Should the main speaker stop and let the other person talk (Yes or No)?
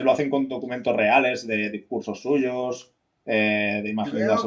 Yes